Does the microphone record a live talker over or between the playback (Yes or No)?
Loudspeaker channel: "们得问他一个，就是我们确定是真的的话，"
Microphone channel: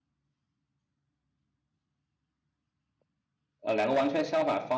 Yes